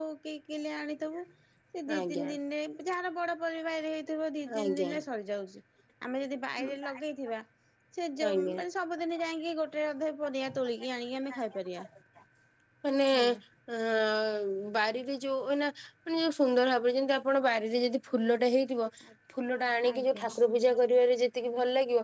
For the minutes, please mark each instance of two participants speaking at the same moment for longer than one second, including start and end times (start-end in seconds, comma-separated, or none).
none